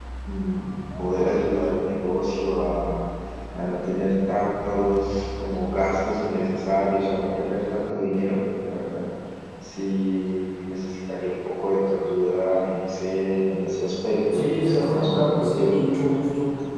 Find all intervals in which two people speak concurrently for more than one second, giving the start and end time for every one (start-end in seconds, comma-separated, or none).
14.3-15.7